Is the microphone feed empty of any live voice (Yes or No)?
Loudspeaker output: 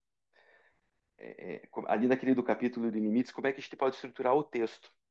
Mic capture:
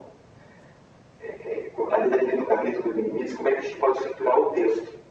Yes